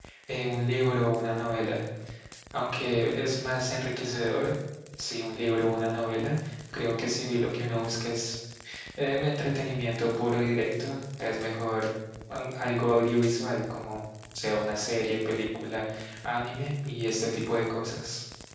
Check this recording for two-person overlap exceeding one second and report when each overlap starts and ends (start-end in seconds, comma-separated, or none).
none